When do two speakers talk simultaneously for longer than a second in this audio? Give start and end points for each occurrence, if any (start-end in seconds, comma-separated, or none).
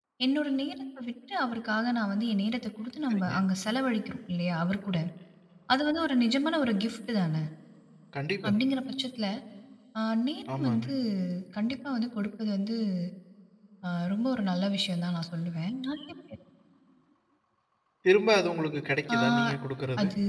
none